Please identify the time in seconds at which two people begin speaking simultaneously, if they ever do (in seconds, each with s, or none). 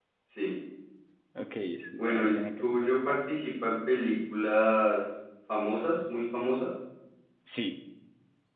2.0 s